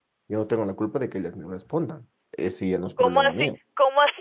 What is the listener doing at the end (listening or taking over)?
taking over